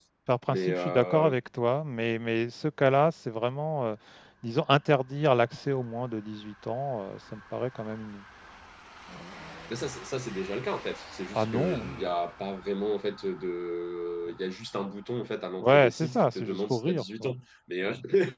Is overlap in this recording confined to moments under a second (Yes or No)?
No